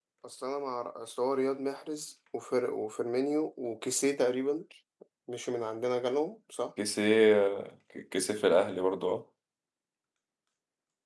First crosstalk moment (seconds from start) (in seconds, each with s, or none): none